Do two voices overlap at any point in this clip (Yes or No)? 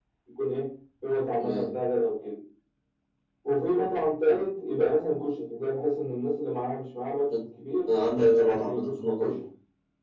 Yes